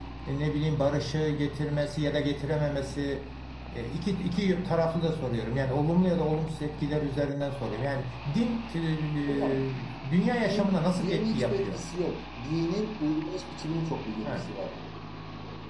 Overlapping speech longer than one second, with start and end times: 10.5-11.8

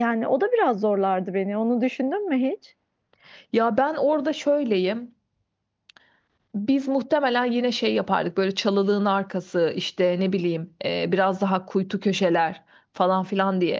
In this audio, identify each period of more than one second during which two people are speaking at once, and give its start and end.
none

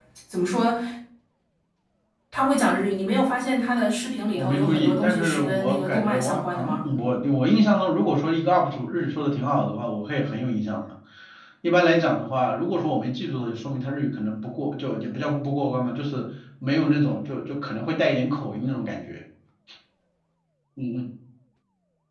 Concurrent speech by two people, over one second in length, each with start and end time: 4.3-6.8

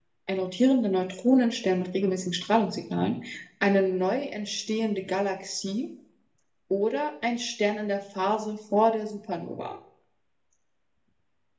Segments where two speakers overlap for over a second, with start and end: none

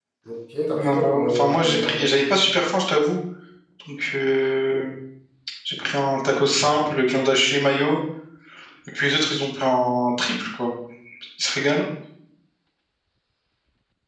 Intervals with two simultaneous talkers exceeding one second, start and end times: 0.8-2.1

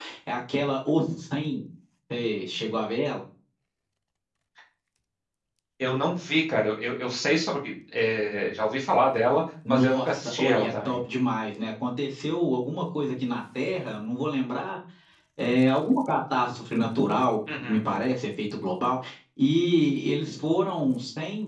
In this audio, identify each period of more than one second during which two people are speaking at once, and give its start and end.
9.7-11.0

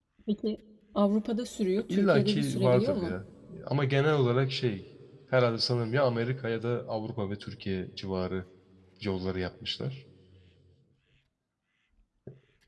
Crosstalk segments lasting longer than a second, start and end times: 1.9-3.1

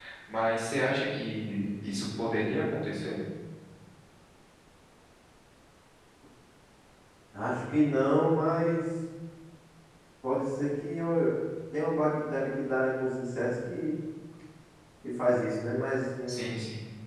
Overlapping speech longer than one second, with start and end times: none

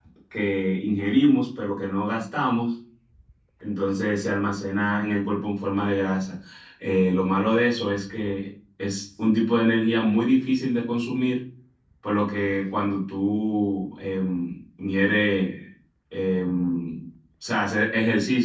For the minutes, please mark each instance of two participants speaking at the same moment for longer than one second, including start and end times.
none

